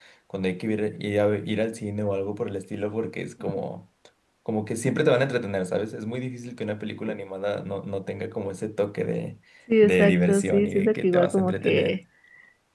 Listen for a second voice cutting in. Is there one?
Yes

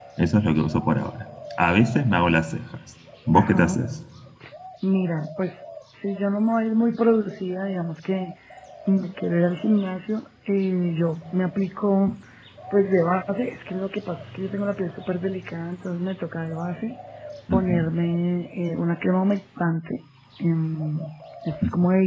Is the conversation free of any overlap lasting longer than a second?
Yes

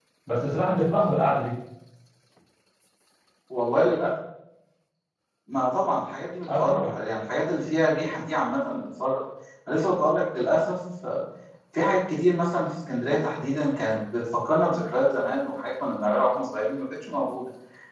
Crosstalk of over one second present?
No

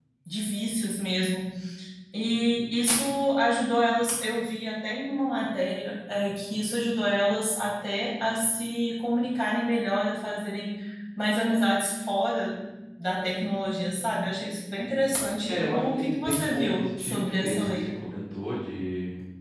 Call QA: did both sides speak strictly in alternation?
No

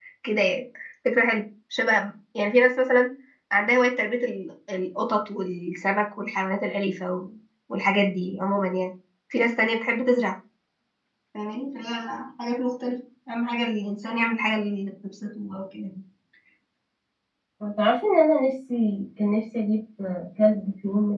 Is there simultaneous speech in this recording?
No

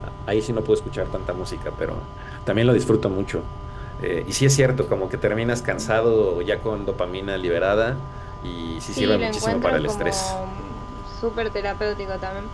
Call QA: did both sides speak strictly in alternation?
No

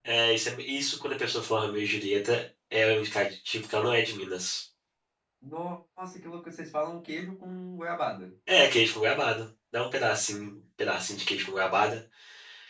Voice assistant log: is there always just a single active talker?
Yes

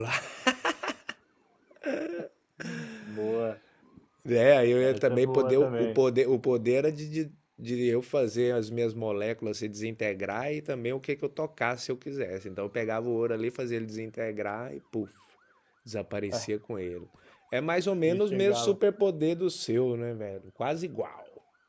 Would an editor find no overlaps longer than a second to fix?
No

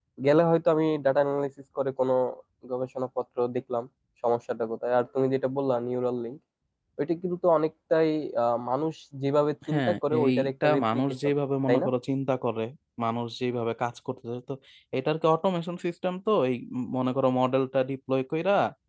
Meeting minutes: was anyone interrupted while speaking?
Yes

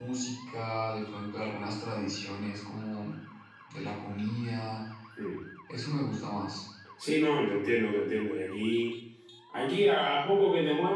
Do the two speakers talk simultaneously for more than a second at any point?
No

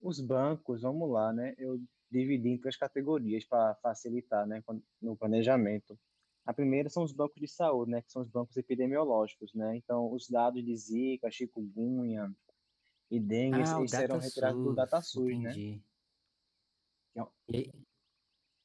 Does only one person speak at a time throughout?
No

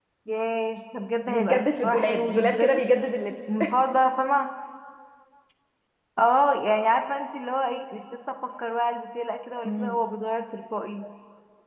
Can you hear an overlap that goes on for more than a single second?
Yes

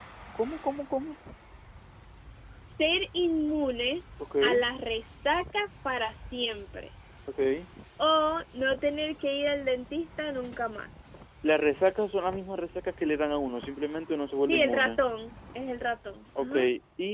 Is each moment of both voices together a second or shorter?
Yes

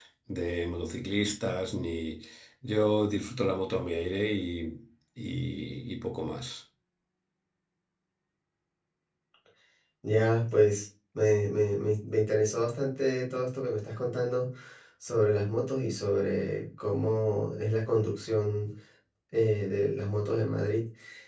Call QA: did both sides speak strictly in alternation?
Yes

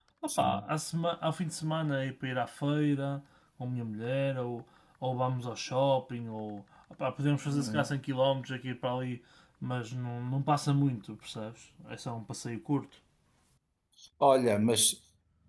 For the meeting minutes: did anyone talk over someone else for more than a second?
No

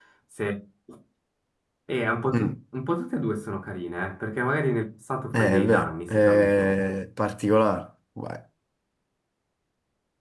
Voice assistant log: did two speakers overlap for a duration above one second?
Yes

